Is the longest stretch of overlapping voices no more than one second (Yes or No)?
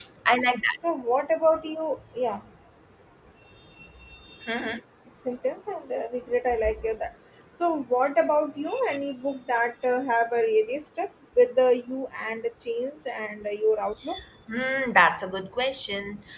Yes